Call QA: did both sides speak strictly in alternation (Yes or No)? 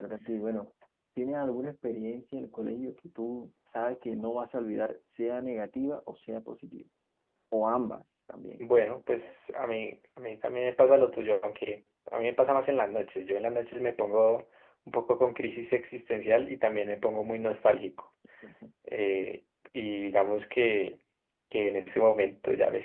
Yes